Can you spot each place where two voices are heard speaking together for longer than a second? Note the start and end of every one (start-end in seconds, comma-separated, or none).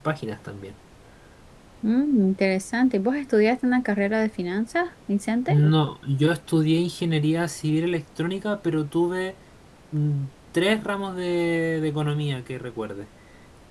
none